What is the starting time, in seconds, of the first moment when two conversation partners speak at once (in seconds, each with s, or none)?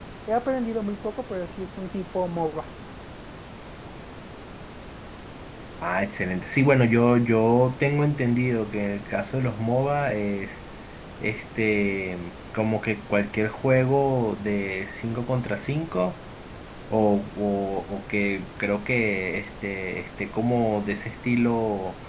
none